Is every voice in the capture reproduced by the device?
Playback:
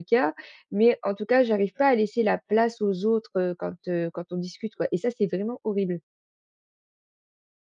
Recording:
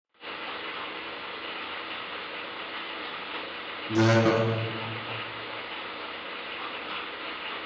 No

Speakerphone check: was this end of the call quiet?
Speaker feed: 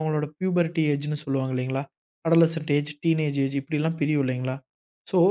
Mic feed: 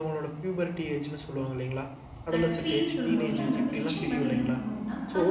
No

